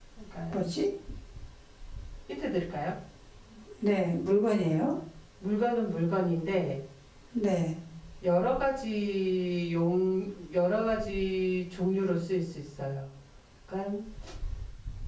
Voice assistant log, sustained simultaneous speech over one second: none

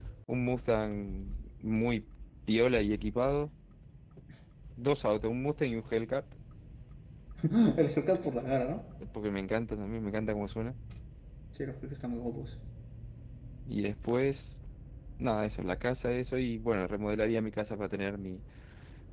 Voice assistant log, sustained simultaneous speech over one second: none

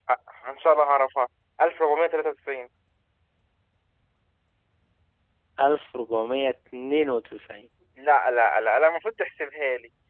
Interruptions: none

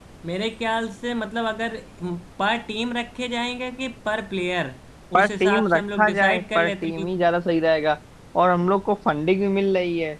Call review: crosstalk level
present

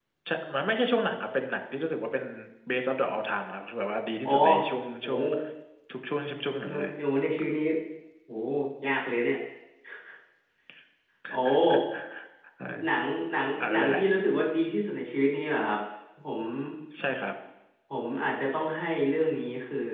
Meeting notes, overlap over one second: none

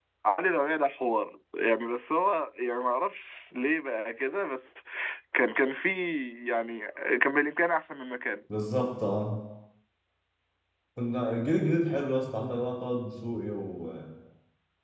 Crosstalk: none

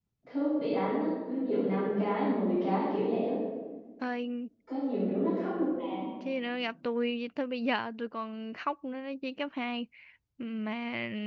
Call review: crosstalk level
none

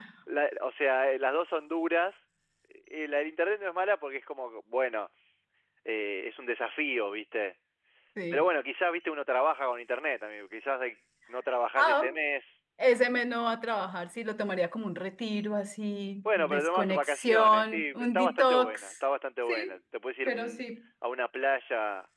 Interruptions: present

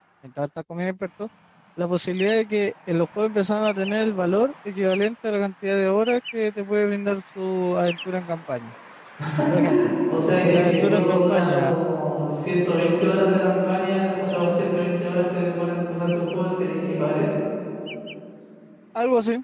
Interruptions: present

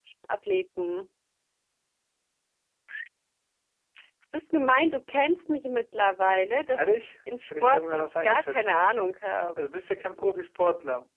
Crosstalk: present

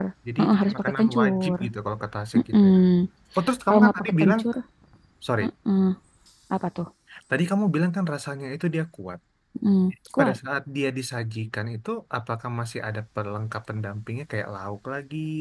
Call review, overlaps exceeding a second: present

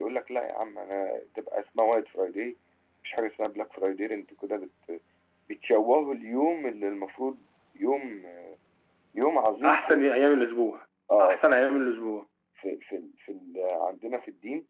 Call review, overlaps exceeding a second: none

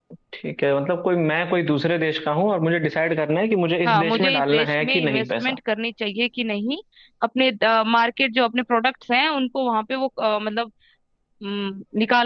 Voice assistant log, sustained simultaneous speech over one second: present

